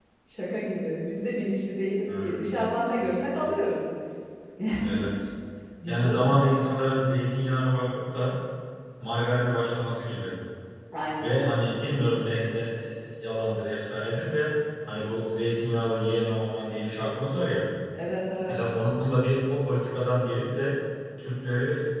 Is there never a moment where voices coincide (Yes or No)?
No